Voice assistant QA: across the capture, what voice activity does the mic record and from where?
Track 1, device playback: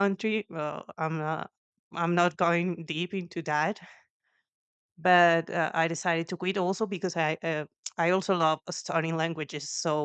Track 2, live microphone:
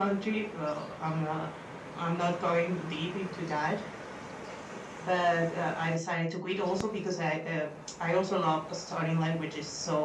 echo only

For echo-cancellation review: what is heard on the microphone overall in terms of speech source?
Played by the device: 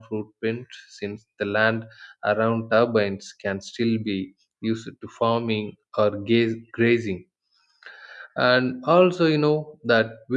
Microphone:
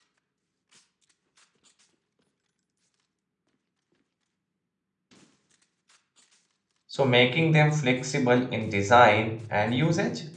user only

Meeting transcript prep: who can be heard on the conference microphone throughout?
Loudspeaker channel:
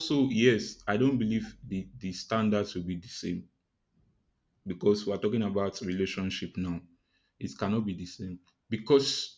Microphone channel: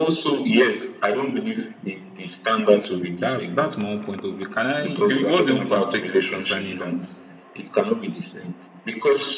both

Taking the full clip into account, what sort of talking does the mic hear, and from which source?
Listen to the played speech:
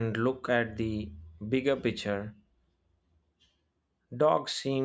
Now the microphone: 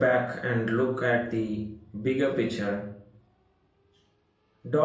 echo only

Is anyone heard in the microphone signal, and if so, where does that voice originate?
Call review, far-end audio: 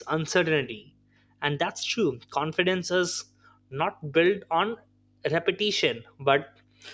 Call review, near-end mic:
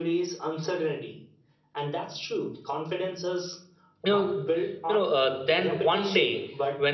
both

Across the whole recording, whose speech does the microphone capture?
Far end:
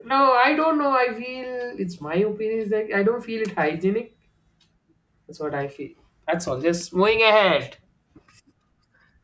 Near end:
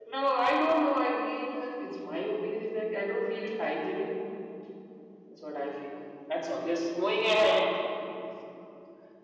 echo only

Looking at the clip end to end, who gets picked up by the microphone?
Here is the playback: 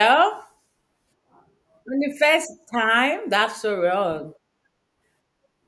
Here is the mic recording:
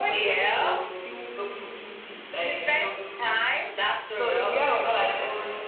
both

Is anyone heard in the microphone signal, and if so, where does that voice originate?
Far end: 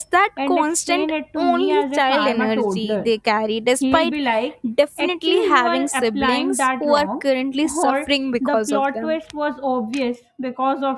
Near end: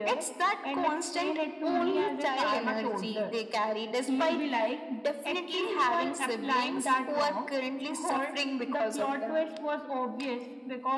echo only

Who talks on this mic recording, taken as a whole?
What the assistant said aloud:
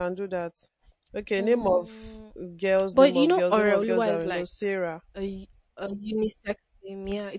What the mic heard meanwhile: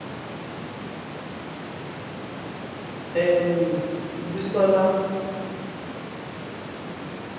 user only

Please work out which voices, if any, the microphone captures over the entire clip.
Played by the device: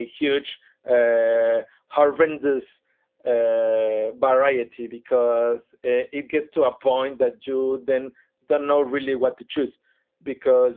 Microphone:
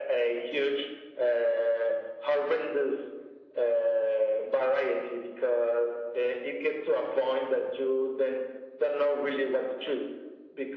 echo only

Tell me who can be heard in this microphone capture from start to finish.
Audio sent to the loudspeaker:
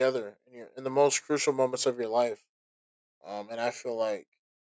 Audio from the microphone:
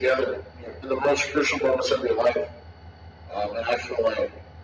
echo only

